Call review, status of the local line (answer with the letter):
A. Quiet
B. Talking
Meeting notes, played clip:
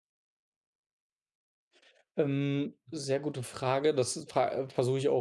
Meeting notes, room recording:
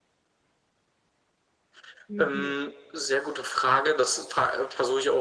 B